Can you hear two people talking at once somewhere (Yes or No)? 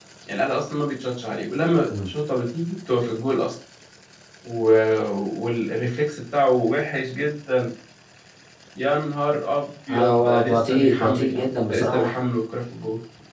Yes